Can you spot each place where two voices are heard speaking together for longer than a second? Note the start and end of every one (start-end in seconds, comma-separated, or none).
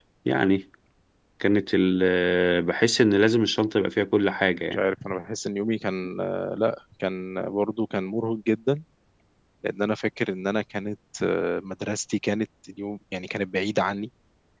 none